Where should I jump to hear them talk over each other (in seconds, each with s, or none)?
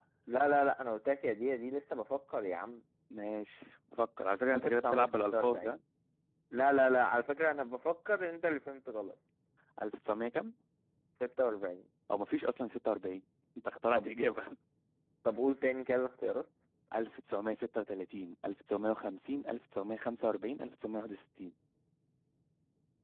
4.5 s